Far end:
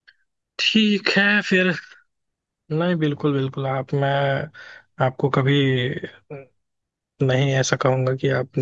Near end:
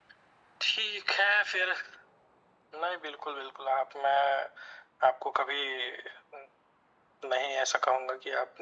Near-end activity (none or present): none